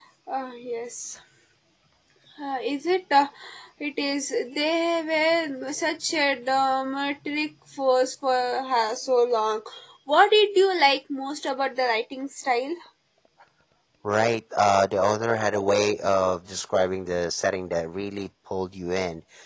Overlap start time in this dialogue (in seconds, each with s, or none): none